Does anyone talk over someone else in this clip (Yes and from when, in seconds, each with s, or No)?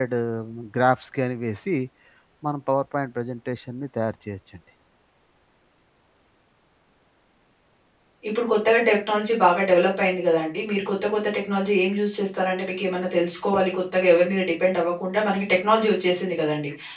No